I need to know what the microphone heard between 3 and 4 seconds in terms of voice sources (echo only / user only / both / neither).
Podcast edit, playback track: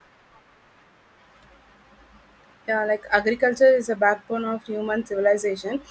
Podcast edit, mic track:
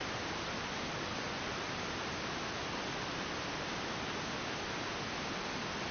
neither